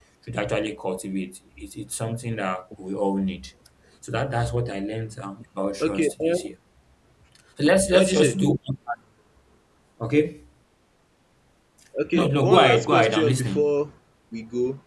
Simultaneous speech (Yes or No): Yes